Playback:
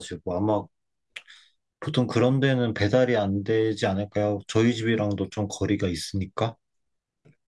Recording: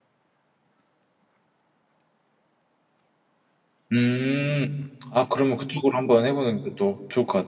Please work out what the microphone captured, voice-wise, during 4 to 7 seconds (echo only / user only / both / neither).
user only